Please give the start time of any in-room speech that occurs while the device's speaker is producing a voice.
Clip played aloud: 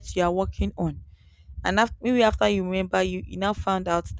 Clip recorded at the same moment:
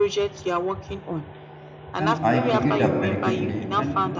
2.0 s

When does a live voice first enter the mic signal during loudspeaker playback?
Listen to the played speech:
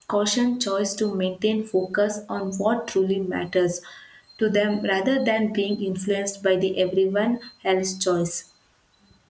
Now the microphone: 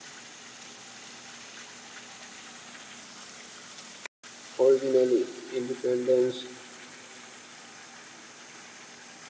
4.6 s

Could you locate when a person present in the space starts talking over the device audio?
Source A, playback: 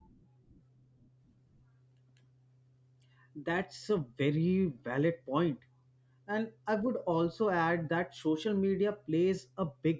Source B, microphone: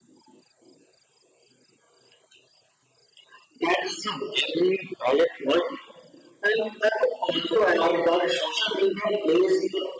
none

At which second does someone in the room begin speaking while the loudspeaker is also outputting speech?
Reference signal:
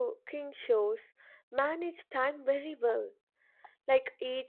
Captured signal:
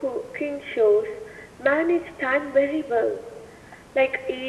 none

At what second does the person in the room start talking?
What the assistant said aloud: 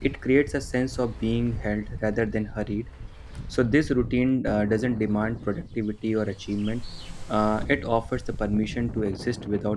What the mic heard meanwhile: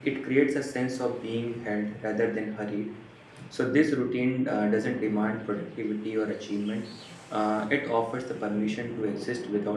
none

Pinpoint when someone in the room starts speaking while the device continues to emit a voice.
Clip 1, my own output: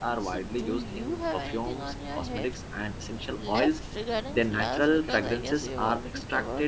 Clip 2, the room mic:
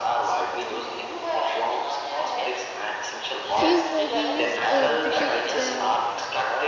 3.5 s

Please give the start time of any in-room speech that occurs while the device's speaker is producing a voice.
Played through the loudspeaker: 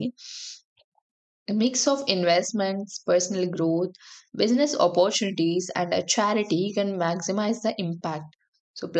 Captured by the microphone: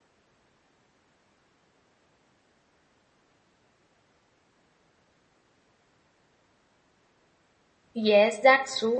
7.9 s

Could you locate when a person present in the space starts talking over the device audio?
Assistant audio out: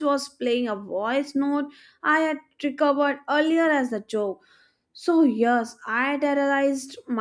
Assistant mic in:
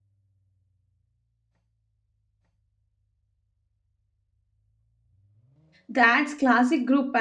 5.9 s

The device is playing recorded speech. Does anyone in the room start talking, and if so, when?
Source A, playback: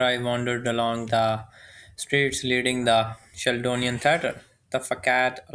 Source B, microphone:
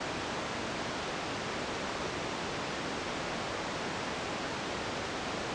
none

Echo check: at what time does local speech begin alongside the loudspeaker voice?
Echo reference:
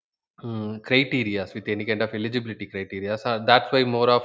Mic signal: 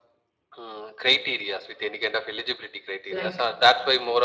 3.1 s

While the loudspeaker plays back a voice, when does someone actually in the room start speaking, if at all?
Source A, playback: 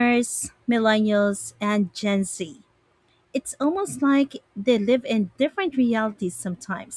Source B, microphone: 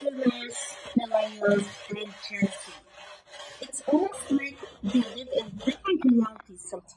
none

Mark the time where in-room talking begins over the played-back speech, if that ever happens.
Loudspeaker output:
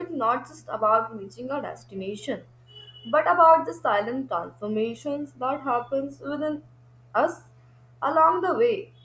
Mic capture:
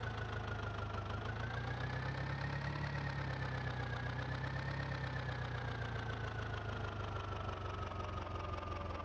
none

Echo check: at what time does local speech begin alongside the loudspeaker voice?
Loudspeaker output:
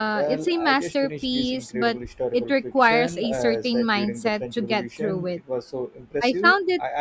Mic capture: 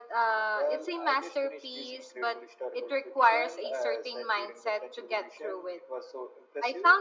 none

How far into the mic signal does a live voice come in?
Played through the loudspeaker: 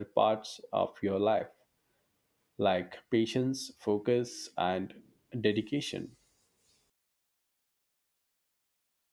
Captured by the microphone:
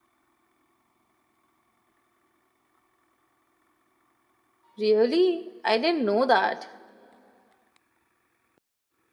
4.8 s

